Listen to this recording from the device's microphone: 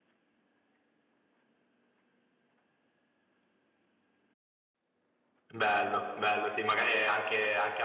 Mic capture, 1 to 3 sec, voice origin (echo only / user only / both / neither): neither